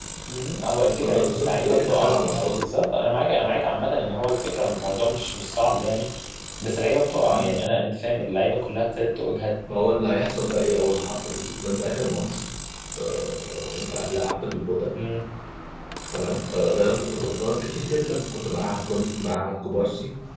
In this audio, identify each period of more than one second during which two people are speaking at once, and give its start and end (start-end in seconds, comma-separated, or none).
1.0-2.6